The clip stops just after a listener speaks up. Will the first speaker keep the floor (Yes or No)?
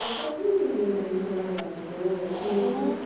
Yes